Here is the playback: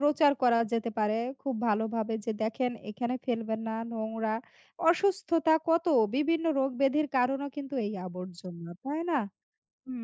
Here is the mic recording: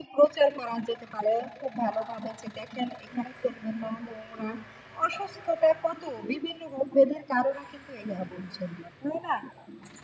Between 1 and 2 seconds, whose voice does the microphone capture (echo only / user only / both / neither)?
echo only